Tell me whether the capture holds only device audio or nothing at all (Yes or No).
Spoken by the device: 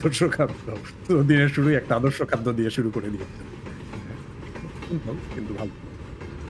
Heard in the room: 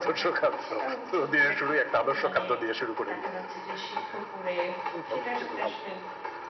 No